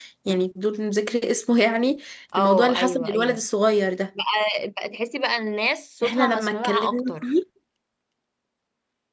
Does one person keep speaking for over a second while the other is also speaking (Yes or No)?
Yes